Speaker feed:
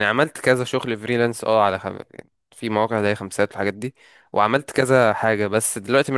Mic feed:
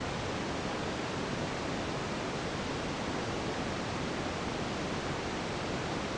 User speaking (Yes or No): No